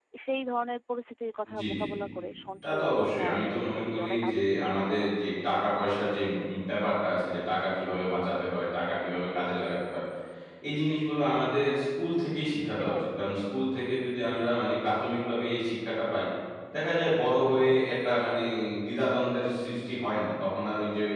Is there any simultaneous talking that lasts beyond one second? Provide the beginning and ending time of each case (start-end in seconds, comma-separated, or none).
2.6-5.3